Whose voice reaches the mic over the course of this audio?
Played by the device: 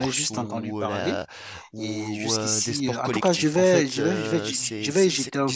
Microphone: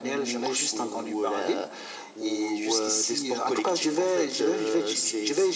echo only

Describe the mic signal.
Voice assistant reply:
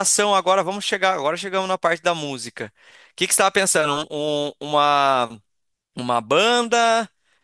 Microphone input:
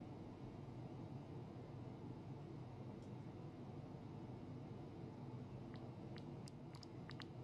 neither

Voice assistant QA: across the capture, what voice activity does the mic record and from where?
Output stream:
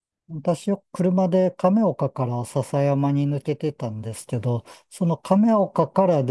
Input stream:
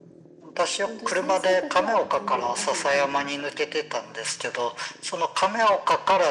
both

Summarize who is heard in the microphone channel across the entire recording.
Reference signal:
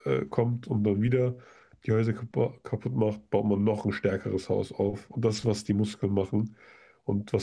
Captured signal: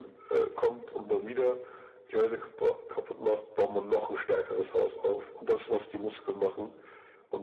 echo only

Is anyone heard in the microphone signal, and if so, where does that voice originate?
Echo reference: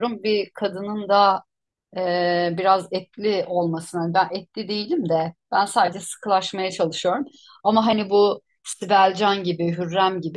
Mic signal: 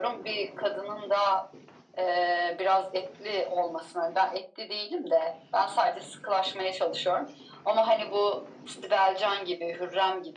echo only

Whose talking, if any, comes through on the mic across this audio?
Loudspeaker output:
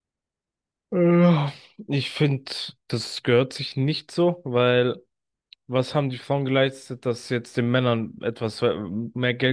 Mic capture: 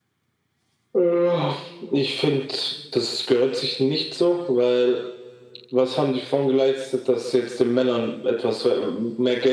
echo only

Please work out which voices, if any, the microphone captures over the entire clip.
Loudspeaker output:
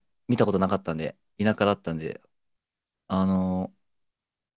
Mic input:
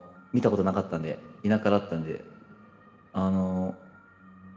echo only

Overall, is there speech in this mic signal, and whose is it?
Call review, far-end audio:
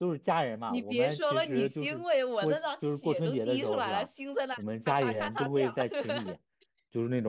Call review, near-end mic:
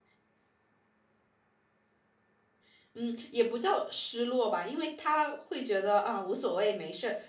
user only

